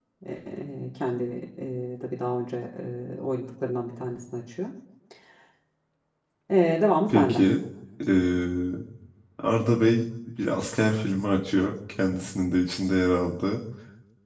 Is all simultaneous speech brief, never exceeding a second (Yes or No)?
Yes